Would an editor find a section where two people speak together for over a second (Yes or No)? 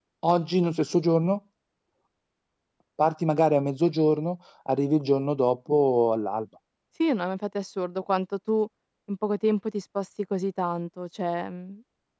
No